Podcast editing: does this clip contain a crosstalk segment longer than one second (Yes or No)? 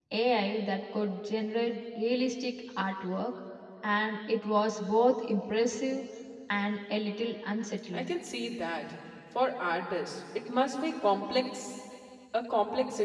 No